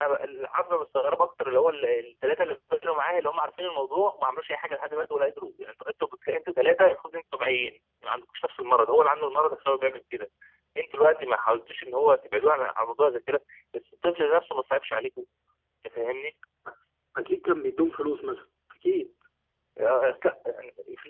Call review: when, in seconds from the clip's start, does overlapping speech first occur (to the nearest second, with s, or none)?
none